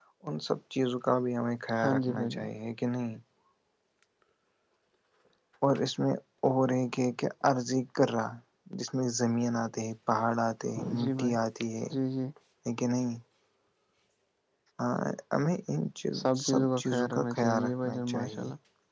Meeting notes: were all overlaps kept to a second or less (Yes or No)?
No